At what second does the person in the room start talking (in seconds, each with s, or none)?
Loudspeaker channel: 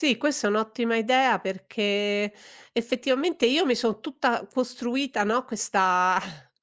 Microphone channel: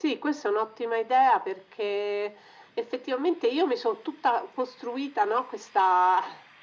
none